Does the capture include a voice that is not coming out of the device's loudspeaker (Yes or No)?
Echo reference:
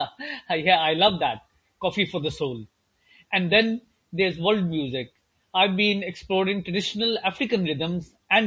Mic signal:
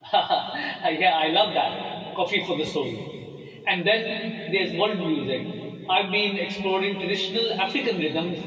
No